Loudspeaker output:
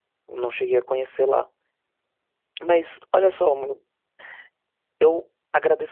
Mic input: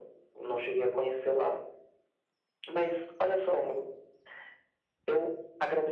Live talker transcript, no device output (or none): none